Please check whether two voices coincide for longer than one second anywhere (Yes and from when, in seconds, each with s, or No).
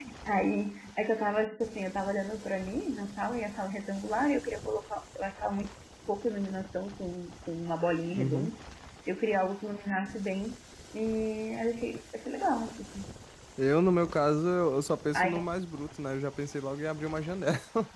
No